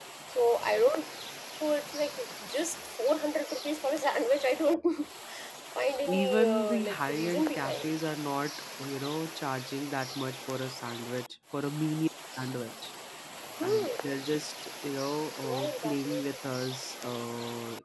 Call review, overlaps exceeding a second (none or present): present